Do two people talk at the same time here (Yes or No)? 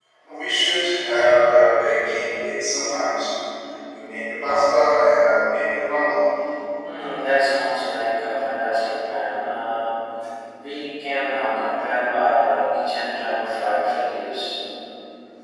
No